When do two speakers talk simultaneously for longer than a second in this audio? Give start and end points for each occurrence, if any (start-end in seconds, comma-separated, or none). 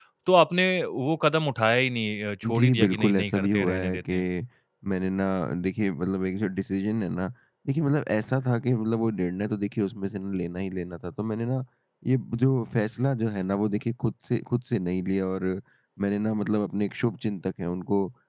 2.6-4.3